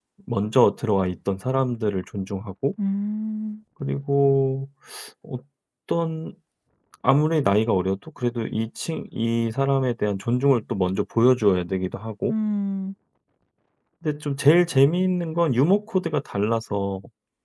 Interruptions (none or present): none